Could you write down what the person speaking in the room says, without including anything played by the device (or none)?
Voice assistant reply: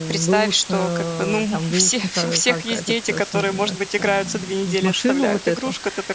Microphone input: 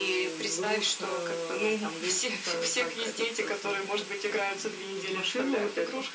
none